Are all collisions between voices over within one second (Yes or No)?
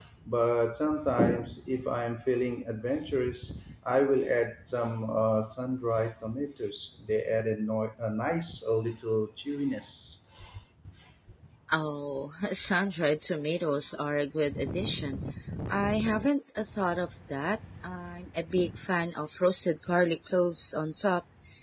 Yes